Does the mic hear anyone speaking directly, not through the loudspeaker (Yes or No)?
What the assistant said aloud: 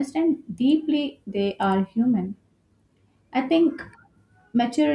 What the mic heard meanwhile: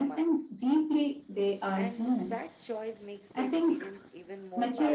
Yes